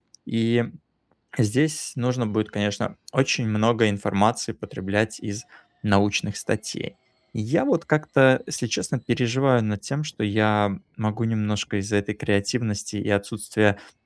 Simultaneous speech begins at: none

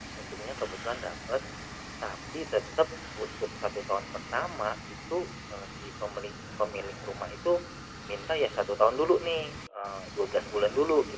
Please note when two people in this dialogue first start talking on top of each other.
none

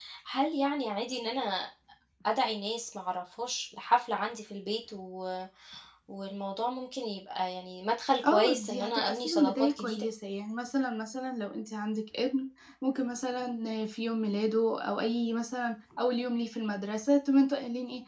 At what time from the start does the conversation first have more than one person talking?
8.2 s

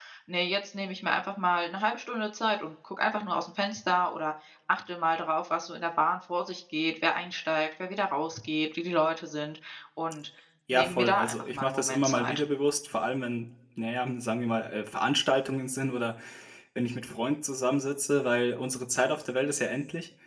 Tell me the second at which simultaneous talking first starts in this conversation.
10.7 s

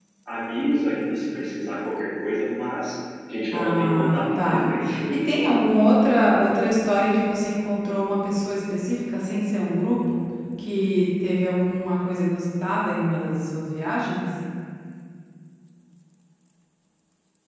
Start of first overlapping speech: 3.5 s

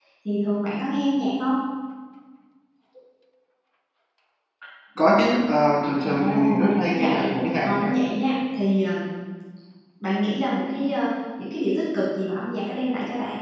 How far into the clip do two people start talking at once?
6.0 s

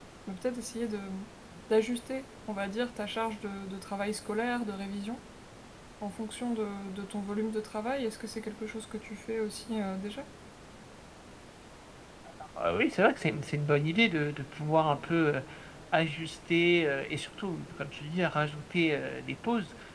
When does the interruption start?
none

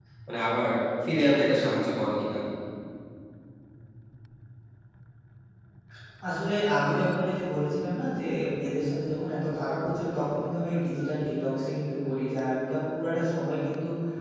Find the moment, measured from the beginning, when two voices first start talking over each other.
none

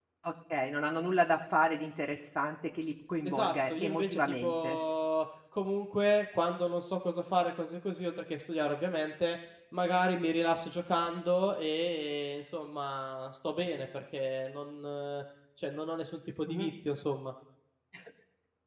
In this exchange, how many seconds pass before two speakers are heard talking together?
3.2 s

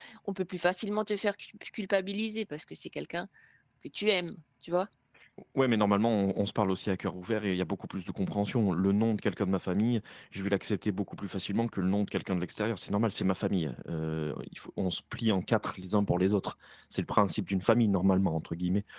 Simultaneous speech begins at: none

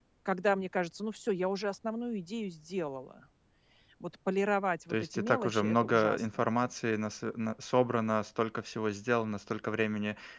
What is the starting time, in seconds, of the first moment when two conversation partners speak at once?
4.9 s

